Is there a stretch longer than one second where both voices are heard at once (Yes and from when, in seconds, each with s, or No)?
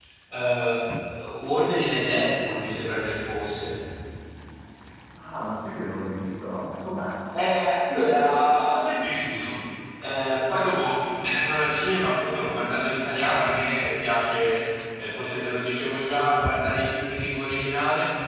No